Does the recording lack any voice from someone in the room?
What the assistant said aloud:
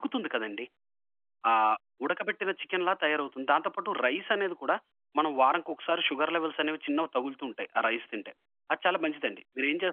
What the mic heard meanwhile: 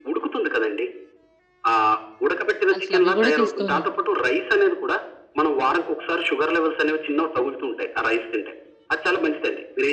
No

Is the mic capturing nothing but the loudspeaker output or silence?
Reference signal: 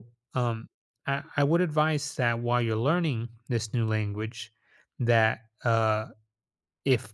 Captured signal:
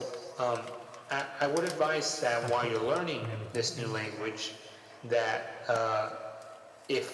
No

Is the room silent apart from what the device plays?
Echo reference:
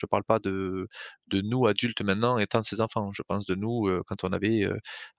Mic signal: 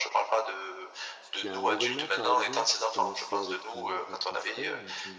No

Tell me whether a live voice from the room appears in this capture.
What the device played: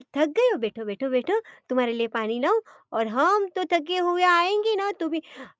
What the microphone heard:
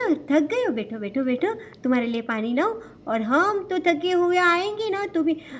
No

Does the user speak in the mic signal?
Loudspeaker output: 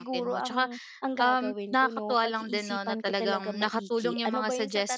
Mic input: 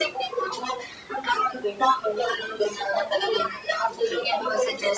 No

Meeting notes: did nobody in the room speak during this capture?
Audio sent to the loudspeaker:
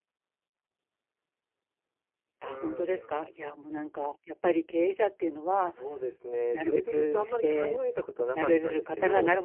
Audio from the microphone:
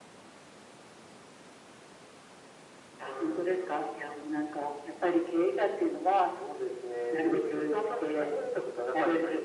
Yes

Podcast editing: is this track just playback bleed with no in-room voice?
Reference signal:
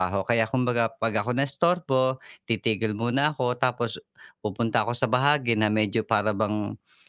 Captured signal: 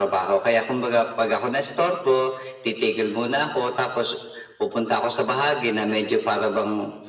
Yes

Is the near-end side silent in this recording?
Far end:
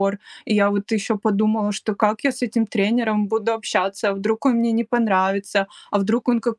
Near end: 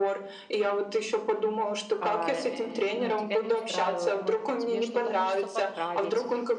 No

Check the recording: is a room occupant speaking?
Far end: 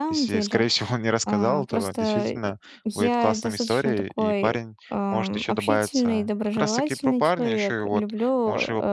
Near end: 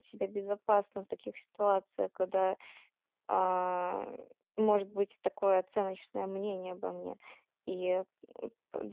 Yes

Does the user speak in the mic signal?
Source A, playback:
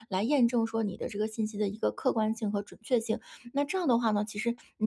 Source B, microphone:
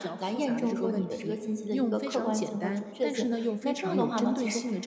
Yes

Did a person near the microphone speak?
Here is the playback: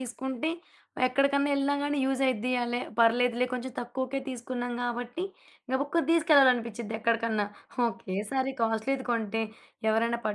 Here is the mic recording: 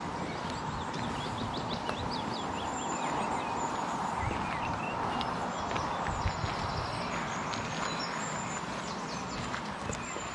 No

